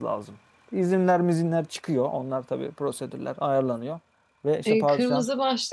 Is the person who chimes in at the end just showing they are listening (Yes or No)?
No